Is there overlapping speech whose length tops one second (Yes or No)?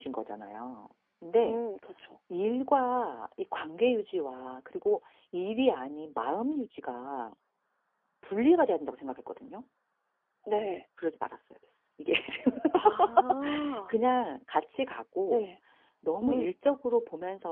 No